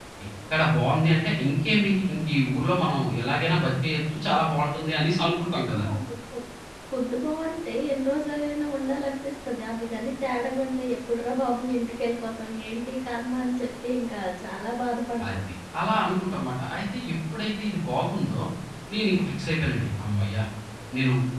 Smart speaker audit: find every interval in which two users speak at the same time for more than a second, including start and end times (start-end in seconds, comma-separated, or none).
none